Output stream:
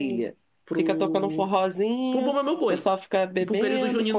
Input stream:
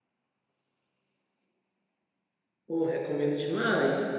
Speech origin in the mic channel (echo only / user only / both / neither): user only